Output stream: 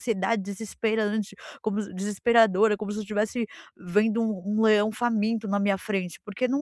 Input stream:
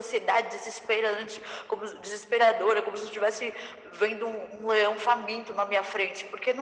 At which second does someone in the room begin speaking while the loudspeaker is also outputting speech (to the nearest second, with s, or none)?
none